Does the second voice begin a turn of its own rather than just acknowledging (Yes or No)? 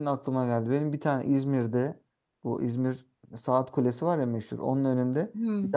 No